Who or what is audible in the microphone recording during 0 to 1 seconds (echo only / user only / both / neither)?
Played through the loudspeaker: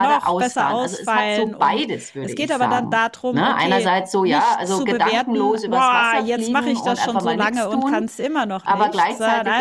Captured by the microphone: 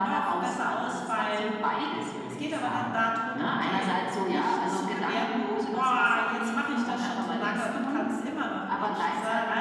echo only